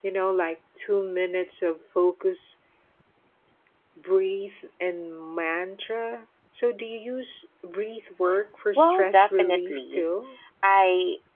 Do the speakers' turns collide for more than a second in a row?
Yes, from 8.8 s

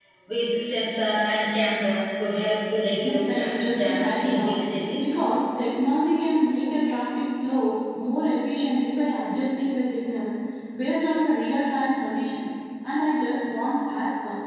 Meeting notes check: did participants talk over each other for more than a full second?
Yes, from 3.0 s

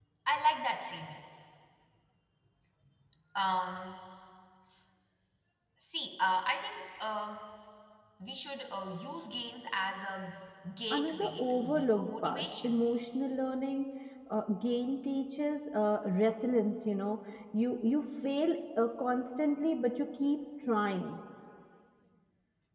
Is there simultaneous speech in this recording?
Yes, from 10.9 s

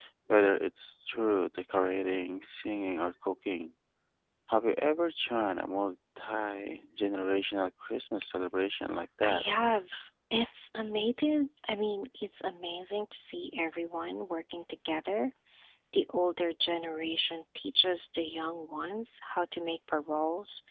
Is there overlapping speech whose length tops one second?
No

